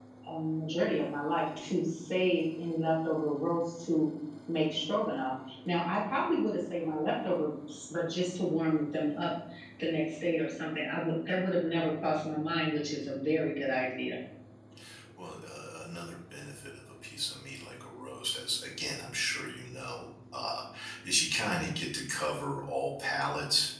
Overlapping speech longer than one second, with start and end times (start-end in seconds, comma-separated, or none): none